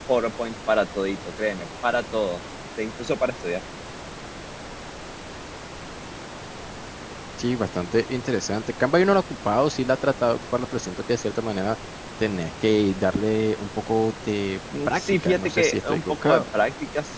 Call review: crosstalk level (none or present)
present